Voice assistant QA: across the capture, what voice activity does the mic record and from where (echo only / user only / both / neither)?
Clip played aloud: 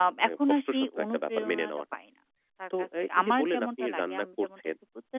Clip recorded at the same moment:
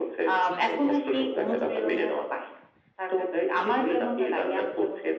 both